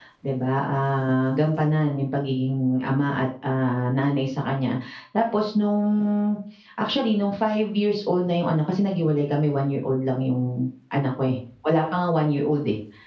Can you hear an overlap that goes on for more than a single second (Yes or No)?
No